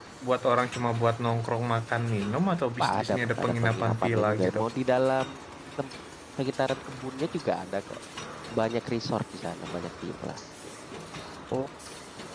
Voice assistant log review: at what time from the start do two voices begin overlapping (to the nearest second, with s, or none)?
3 s